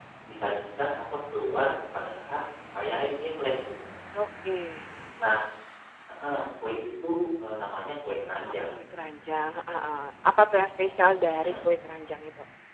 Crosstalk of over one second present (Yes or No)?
No